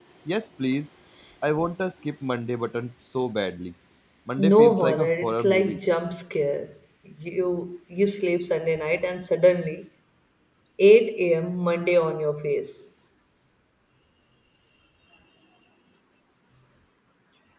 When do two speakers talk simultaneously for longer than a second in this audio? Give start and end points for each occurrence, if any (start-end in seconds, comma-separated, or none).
4.4-5.8